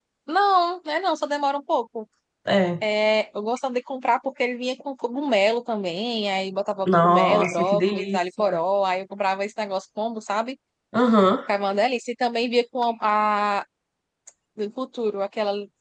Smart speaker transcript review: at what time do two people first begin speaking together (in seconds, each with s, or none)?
6.9 s